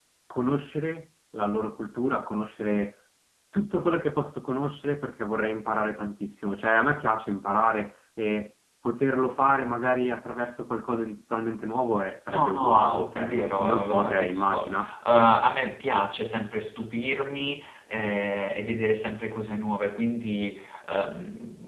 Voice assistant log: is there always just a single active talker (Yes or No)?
No